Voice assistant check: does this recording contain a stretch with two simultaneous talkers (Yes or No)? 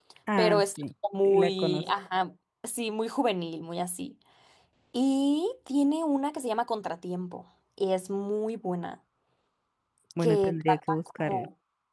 Yes